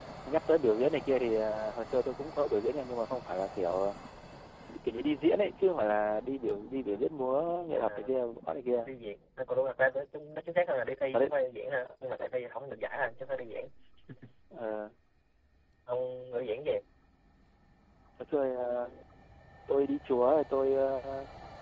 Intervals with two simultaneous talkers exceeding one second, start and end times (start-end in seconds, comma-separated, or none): none